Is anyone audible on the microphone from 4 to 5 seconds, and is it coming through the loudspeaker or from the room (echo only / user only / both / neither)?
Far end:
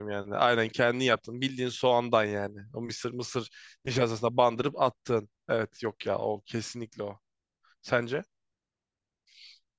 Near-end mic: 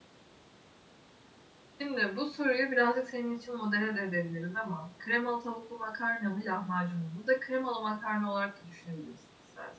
user only